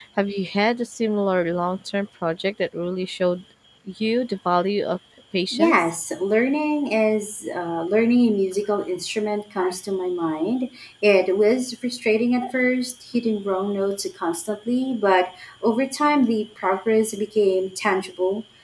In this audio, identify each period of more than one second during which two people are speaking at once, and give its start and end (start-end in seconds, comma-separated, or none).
none